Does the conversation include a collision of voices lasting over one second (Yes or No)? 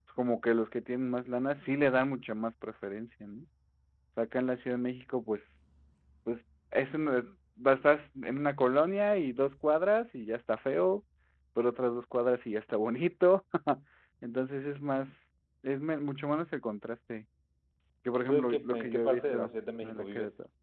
Yes